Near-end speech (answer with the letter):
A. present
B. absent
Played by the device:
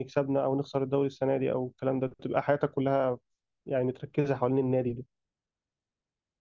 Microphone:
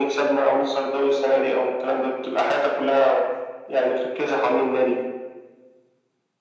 B